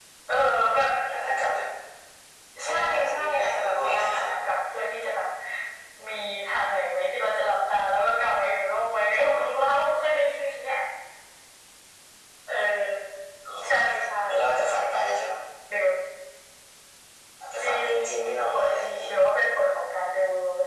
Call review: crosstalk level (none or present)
present